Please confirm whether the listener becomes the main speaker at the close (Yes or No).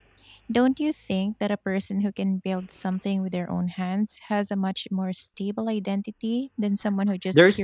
Yes